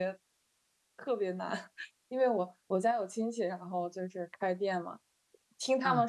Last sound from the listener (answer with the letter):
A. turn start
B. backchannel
B